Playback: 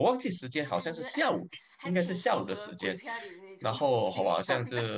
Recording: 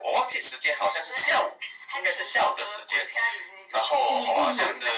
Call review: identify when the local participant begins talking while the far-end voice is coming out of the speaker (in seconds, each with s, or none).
4.0 s